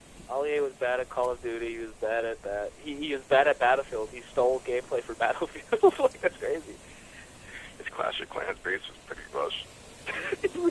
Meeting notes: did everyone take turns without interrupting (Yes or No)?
Yes